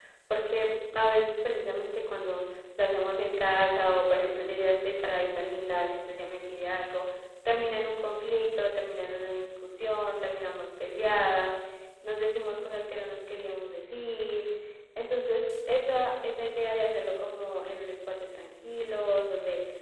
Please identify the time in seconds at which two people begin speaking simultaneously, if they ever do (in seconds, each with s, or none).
none